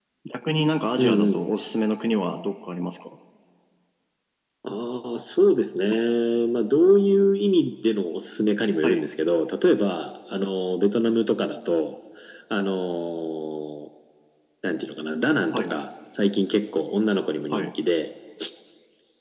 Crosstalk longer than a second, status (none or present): none